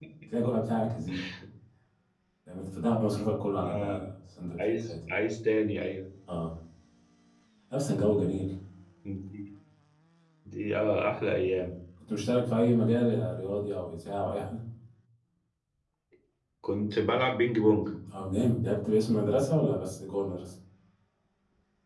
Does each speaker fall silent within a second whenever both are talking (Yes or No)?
Yes